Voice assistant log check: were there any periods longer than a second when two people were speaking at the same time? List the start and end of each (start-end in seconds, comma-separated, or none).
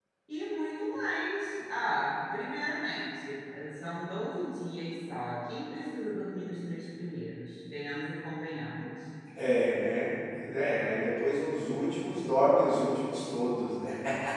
none